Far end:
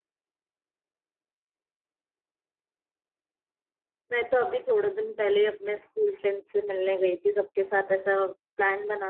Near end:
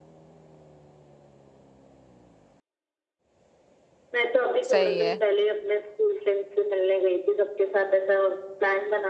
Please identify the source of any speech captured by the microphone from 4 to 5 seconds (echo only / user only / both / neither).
both